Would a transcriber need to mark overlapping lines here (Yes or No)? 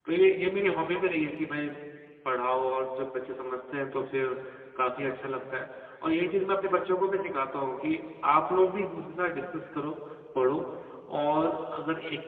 No